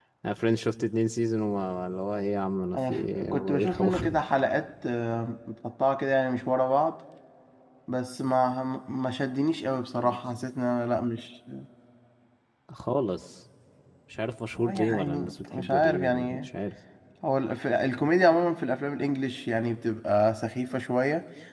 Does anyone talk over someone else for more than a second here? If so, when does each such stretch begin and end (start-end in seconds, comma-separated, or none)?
2.8-4.2, 14.6-16.5